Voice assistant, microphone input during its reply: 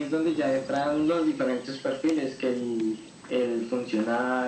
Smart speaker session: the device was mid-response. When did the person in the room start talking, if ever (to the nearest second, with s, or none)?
none